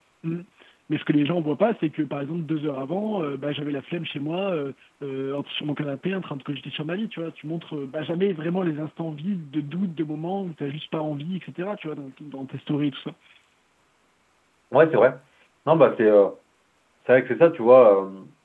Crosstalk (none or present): none